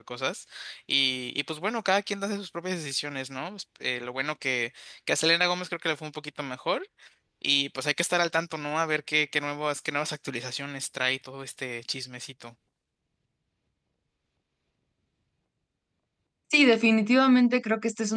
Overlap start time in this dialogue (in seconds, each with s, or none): none